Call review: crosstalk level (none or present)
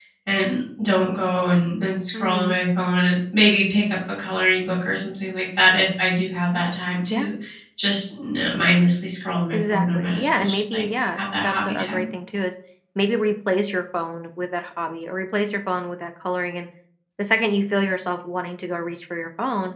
present